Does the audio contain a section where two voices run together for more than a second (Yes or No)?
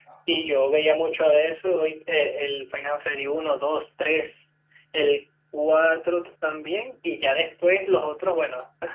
No